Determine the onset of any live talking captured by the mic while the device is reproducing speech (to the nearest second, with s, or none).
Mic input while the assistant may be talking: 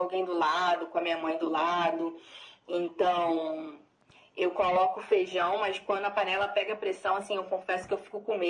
none